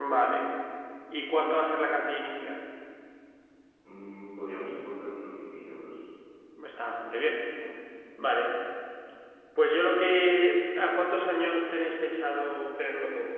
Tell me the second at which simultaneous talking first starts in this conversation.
none

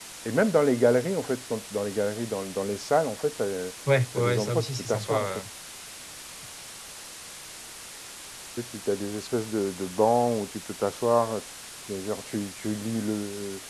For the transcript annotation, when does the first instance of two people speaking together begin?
4.2 s

